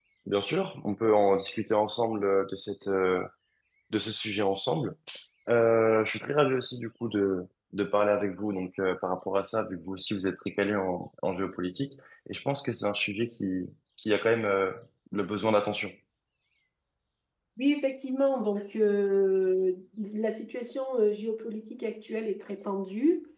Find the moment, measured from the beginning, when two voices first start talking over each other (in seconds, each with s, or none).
none